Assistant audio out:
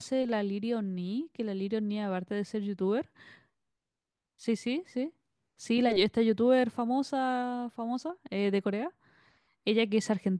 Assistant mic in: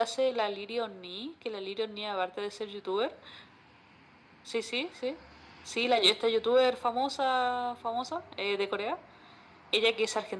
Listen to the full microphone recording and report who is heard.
echo only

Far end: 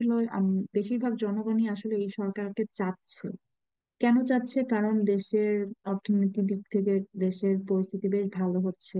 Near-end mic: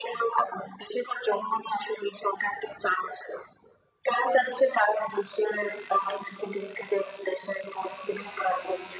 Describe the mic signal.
echo only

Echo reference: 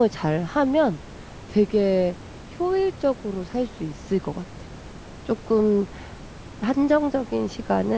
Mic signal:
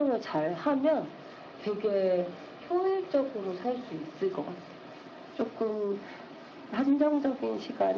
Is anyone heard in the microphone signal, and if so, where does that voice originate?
echo only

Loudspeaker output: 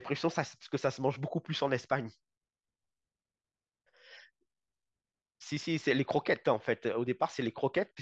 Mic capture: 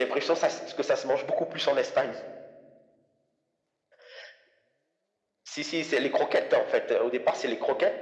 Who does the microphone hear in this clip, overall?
echo only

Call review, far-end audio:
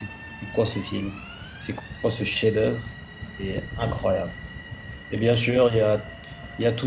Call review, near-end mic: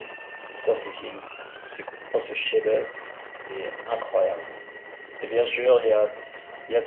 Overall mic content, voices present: echo only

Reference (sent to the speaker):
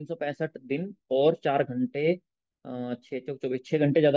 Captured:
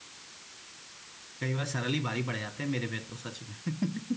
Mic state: user only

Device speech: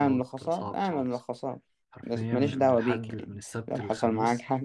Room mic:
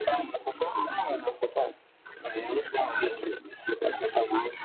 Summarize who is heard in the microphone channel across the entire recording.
echo only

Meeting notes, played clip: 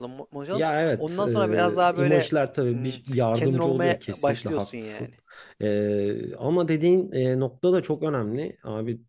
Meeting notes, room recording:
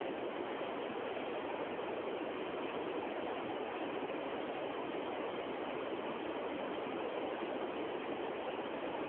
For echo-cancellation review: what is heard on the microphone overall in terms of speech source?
neither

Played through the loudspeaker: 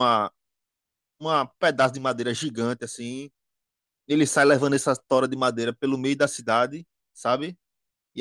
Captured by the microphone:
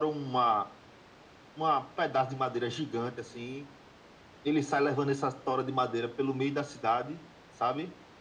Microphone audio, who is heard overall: echo only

